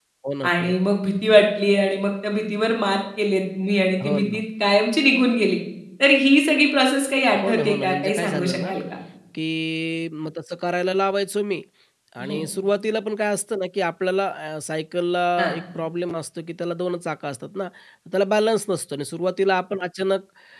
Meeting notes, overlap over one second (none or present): present